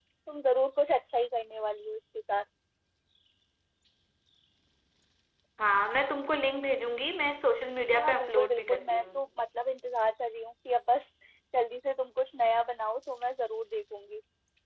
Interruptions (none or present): present